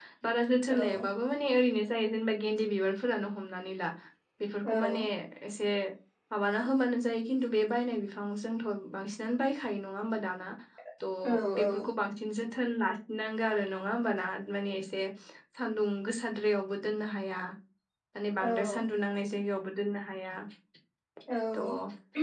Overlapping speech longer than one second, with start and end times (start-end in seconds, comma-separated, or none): none